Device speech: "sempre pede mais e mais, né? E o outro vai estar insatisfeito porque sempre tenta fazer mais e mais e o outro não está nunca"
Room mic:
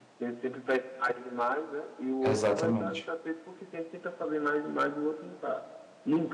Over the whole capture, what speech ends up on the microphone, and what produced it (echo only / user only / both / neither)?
both